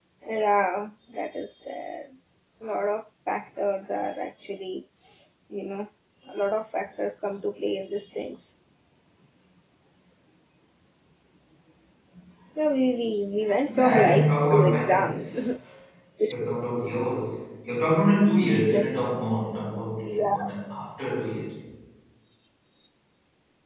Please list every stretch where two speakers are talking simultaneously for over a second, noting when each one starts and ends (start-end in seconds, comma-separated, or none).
13.8-15.3